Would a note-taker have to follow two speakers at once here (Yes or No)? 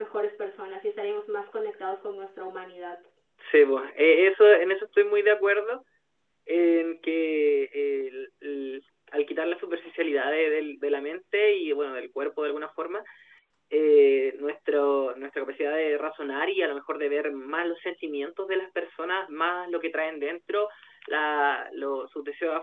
No